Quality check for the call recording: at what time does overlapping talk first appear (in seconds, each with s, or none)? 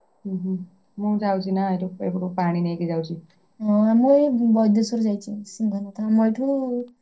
none